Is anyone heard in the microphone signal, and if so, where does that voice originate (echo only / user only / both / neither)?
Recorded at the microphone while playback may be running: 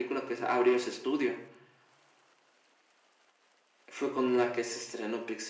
echo only